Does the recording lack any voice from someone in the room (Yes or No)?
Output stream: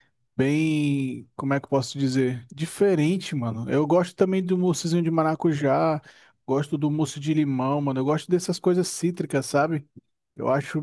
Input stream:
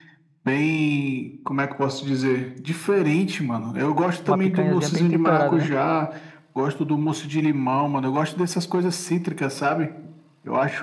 No